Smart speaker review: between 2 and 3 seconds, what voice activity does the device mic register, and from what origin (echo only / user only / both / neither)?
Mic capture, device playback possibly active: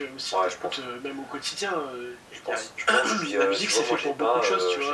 echo only